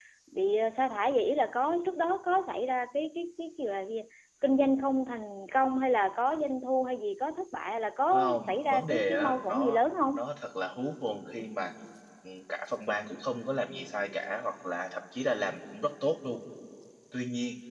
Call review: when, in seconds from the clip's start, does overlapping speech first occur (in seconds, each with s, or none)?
8.1 s